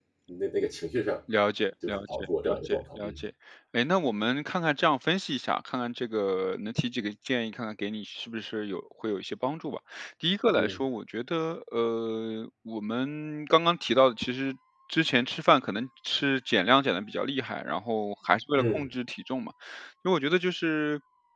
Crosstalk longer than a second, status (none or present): present